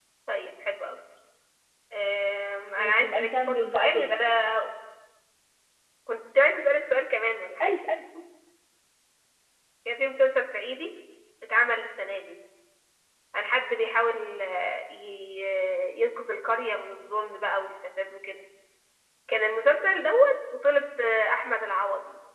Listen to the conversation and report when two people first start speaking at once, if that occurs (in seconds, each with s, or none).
2.8 s